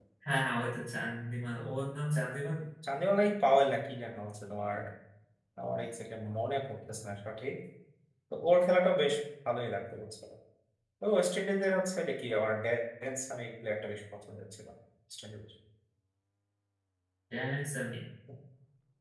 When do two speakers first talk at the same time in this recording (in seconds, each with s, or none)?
none